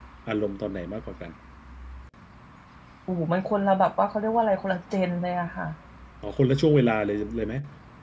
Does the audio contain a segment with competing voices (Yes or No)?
No